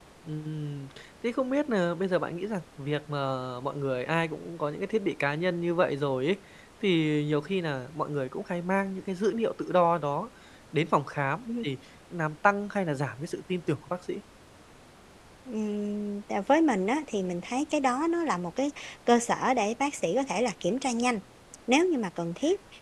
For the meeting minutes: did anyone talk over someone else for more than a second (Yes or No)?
No